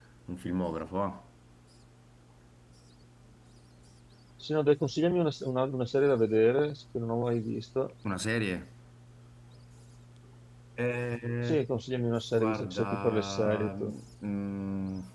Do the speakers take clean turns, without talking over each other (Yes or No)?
No